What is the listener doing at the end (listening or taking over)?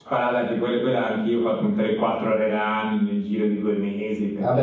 taking over